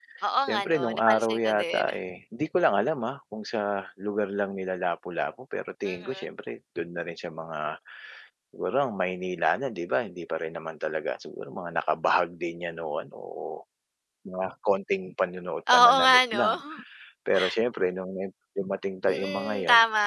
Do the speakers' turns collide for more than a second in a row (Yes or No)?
Yes